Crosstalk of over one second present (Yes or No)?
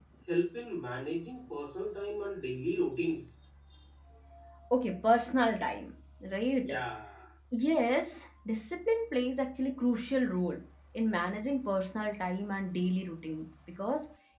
No